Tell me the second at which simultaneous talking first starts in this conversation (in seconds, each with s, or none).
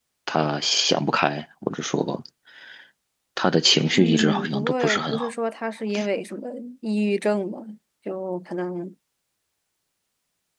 3.9 s